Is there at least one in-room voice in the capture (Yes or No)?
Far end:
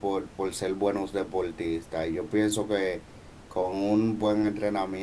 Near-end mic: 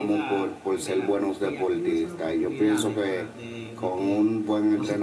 Yes